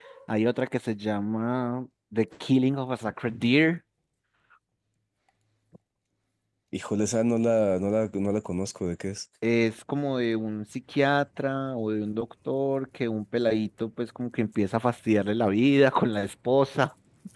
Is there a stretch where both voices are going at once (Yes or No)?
No